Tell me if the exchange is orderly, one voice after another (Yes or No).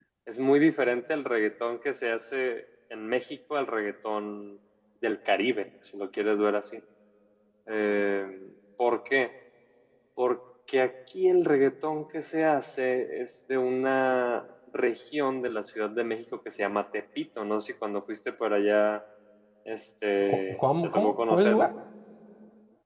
No